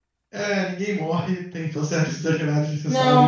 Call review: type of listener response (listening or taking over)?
taking over